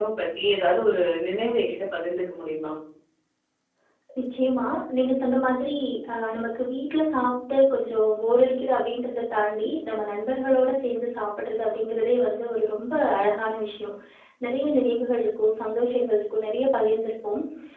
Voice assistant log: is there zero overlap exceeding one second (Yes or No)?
Yes